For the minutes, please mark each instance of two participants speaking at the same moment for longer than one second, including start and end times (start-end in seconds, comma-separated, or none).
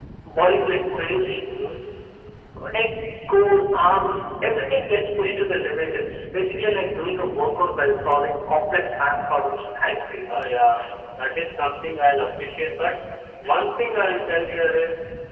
none